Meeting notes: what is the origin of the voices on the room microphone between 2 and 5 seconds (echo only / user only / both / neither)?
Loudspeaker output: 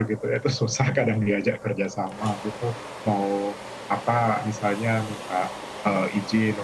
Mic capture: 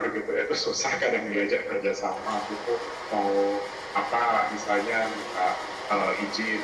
echo only